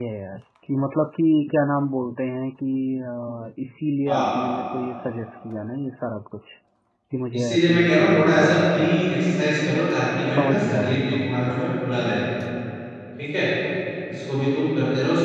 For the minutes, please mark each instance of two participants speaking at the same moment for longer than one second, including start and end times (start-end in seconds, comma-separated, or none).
7.3-9.2, 10.3-11.6